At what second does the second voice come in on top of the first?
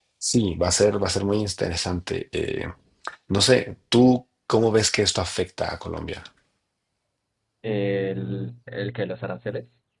none

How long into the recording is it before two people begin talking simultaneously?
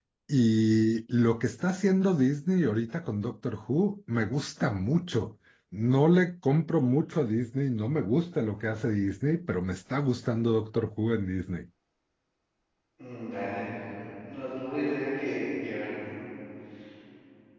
none

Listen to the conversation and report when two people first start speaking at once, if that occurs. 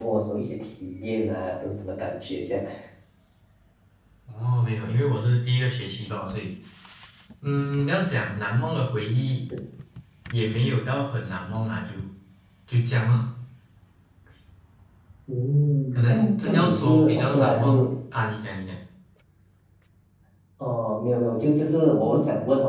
15.9 s

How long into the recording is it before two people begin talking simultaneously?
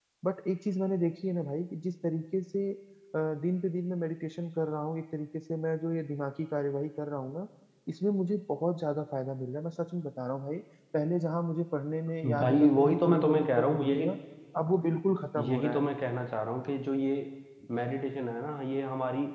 12.4 s

